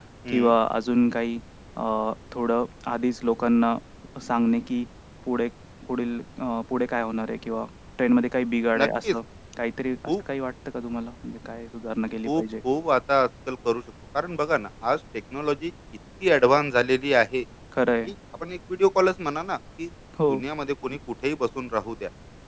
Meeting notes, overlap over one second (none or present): none